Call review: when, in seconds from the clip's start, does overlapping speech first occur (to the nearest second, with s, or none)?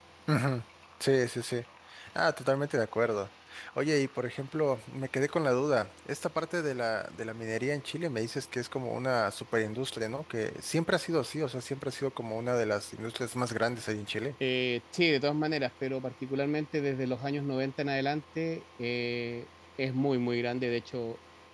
none